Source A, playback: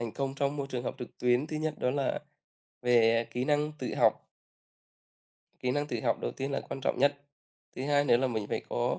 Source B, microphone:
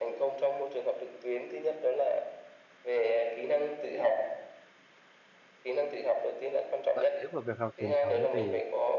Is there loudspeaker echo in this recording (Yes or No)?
Yes